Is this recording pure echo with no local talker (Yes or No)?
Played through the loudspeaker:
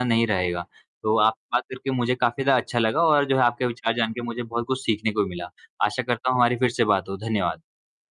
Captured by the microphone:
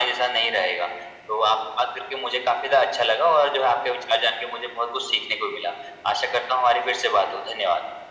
Yes